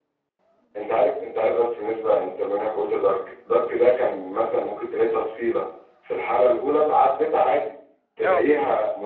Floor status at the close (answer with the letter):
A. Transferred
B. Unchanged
B